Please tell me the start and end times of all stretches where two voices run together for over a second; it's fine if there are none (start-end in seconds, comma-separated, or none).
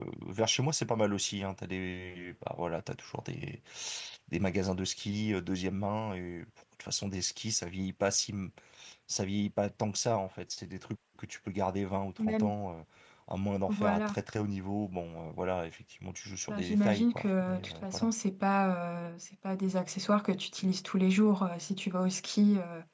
16.5-18.1